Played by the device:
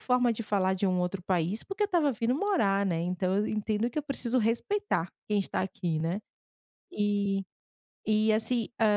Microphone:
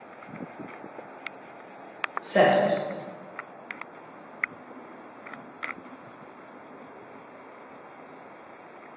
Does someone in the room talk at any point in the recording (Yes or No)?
Yes